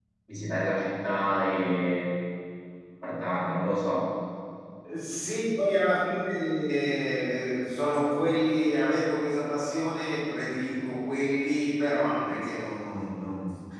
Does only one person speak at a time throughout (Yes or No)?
Yes